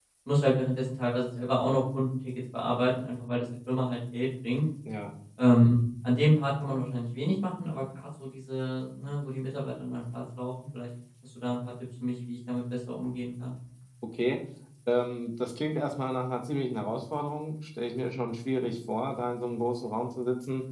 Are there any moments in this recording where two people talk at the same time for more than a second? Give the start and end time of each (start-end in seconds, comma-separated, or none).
none